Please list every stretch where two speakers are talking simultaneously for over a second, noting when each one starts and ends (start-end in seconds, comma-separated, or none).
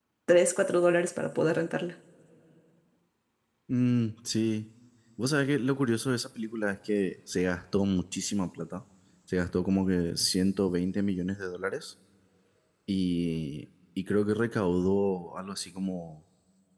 none